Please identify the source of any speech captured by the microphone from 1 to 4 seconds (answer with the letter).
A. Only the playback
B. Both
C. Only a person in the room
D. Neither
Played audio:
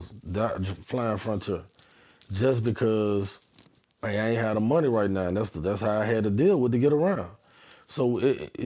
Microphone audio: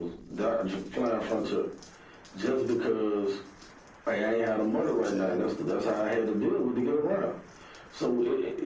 A